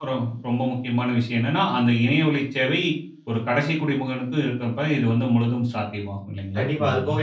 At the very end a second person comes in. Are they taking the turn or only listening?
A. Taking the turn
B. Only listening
A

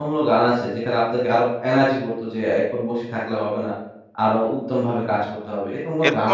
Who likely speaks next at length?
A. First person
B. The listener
B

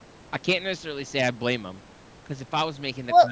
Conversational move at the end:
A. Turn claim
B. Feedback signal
B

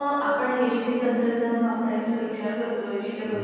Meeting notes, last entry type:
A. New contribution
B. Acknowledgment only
B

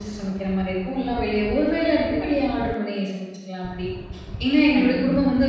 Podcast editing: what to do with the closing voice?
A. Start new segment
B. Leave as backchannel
B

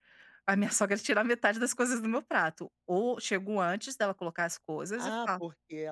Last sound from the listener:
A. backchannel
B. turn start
B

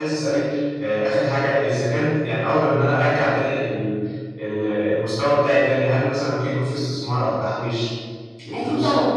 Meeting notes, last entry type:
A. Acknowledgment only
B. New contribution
B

